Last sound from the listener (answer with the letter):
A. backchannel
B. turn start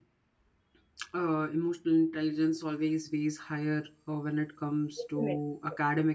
A